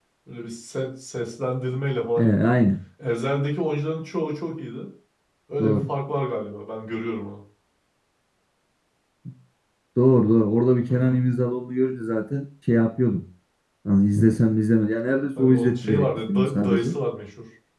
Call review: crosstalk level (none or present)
present